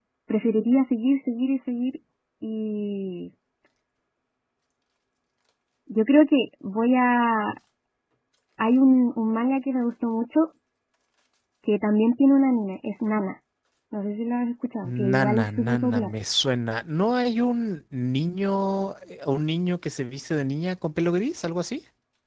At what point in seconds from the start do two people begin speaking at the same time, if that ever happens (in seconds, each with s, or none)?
14.8 s